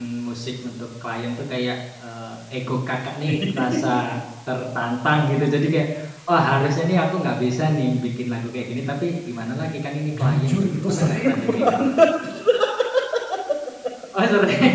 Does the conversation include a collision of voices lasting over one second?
Yes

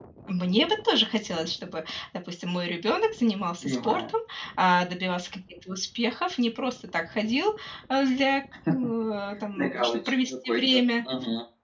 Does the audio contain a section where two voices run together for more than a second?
Yes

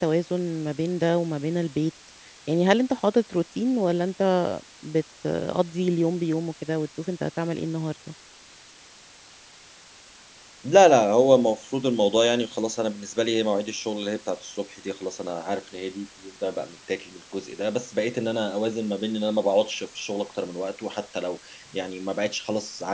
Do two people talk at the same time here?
No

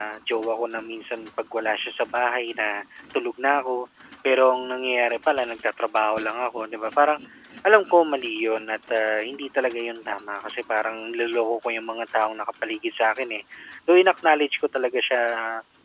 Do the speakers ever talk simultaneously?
No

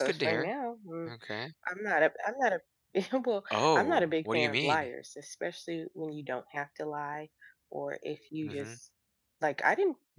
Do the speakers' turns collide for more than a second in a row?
Yes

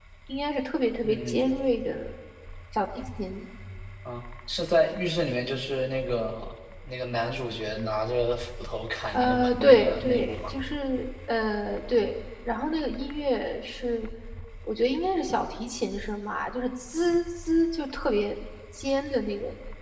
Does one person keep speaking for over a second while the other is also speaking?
Yes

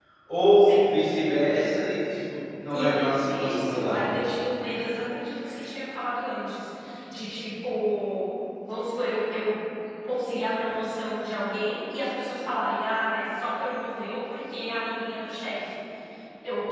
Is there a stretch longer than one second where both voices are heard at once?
Yes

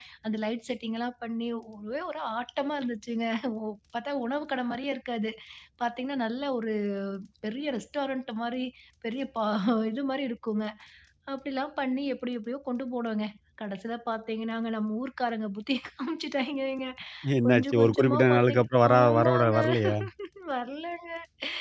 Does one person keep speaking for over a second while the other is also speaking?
Yes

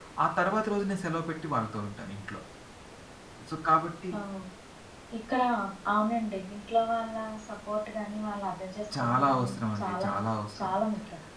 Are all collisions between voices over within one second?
No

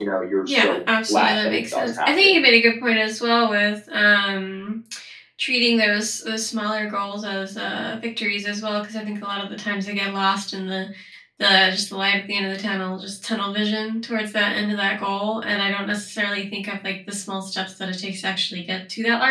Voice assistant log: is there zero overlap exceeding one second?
No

